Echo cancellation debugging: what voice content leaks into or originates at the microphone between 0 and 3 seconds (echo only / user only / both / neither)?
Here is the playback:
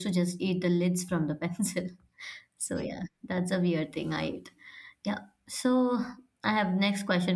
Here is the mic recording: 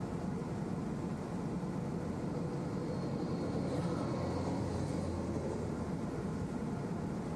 neither